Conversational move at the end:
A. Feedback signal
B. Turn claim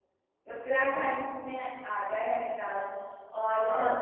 A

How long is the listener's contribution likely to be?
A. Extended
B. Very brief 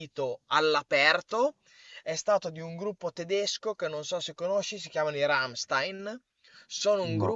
B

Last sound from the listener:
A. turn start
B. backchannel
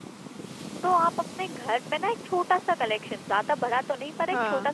B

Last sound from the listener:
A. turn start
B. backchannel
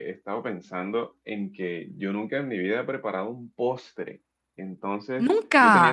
B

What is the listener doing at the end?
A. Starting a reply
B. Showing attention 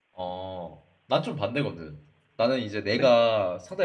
B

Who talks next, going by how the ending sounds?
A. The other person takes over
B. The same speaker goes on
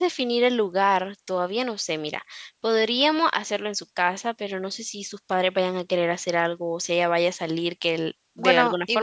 A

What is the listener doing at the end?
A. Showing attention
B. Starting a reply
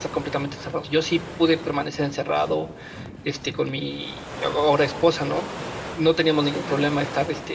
A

